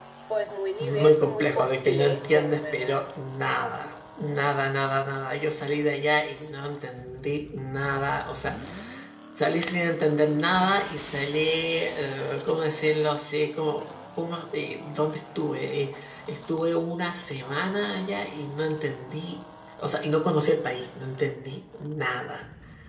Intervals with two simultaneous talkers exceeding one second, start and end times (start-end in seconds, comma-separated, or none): 0.8-3.1